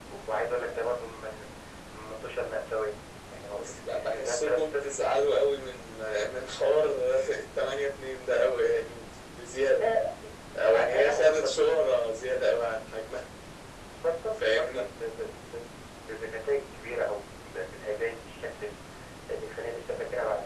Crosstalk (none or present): present